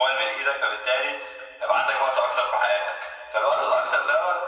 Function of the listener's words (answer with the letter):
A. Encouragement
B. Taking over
A